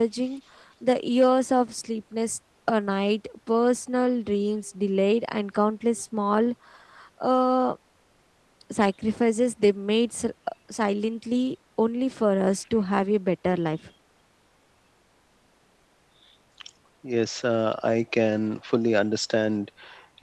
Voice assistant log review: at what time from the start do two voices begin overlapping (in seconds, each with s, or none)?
none